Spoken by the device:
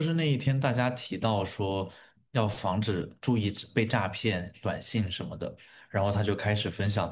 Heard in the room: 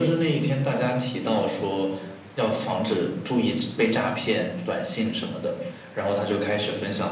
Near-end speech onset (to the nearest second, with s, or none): none